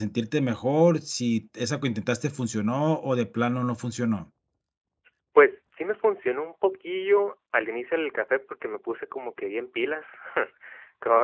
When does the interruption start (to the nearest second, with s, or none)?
none